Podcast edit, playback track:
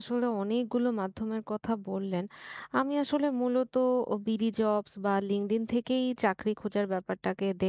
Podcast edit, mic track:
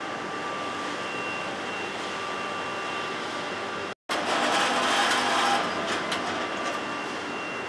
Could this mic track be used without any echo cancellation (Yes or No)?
Yes